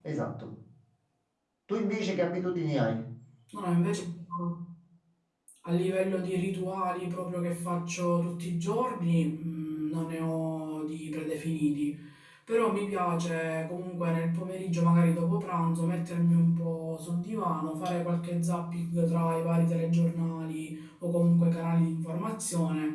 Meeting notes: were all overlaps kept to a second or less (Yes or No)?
Yes